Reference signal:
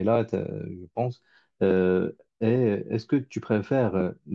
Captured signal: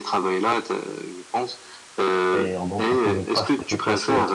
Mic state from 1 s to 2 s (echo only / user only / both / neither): echo only